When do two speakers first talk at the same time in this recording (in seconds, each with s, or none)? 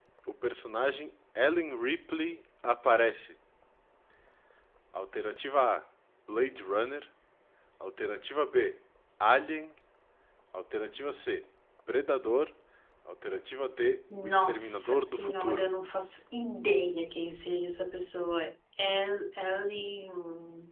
14.1 s